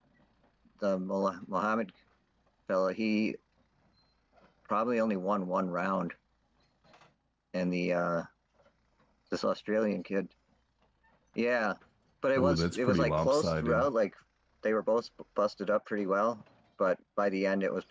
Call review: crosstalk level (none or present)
present